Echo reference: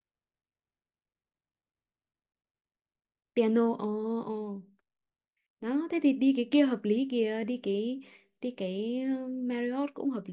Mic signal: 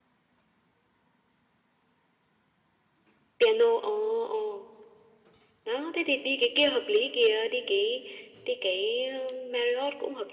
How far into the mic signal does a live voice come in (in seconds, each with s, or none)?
none